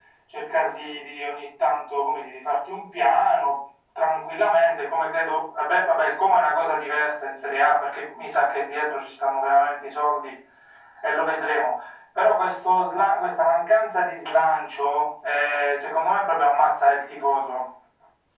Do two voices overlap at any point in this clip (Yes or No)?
No